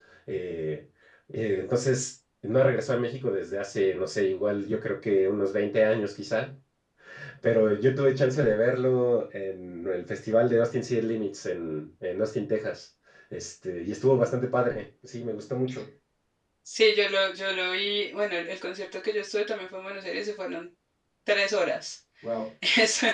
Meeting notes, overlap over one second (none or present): none